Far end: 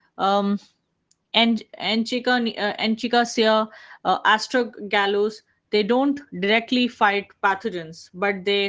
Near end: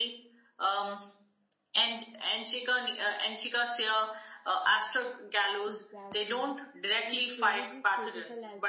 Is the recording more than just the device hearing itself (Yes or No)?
Yes